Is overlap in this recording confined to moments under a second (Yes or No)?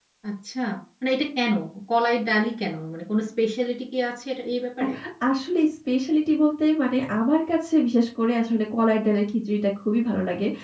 Yes